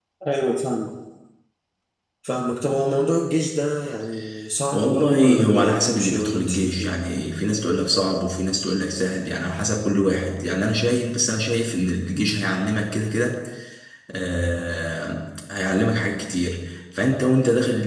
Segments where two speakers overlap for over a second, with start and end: 4.7-6.9

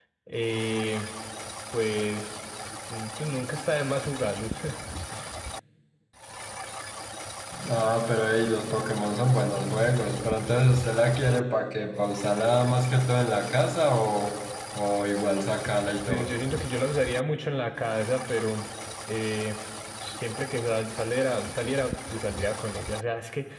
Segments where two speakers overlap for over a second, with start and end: none

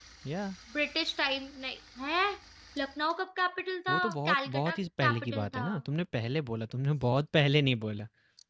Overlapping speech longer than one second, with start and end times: 3.9-5.7

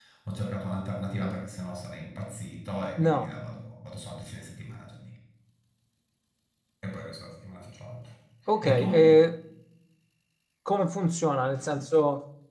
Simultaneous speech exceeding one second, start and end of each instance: none

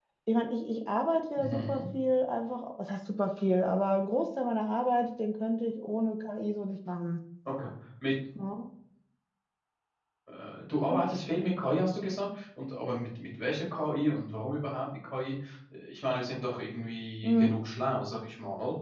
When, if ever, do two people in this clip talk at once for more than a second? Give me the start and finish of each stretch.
none

